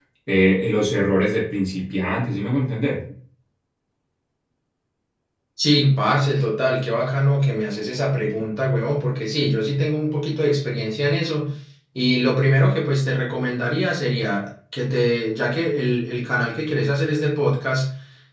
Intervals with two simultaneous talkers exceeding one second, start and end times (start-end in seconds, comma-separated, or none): none